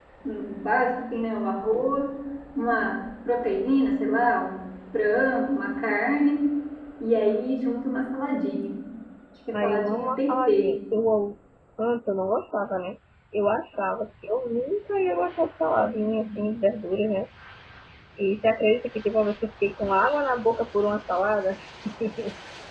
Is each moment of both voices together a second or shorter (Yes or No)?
No